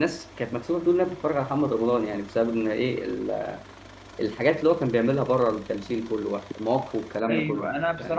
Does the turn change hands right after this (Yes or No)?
Yes